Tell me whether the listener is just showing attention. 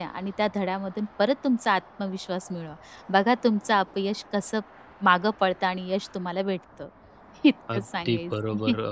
No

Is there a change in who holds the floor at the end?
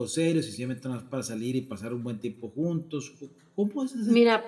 Yes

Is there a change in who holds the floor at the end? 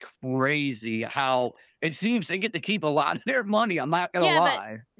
Yes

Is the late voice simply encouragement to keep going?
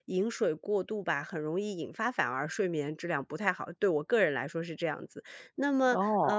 Yes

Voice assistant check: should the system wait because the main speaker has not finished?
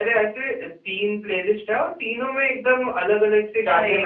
No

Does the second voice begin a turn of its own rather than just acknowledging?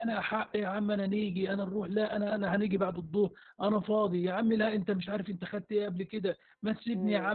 No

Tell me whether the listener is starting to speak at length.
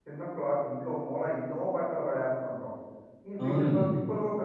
No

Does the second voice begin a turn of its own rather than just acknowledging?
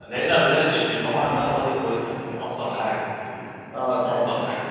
No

